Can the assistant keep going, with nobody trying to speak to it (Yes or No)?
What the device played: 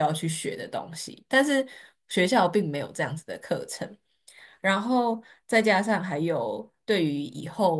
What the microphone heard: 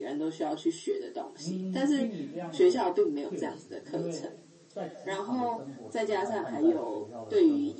No